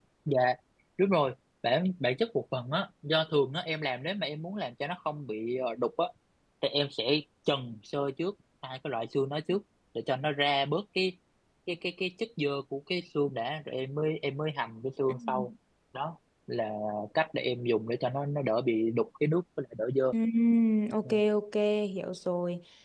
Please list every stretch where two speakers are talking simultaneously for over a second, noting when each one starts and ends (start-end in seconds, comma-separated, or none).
none